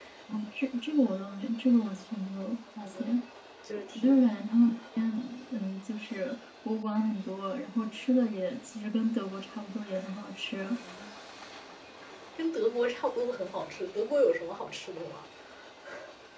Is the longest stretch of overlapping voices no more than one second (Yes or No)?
Yes